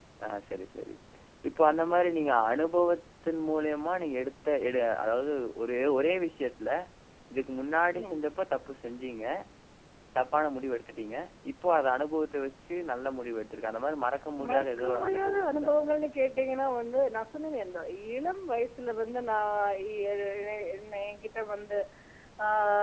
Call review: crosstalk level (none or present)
present